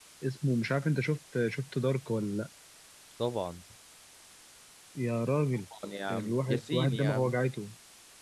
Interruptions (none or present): present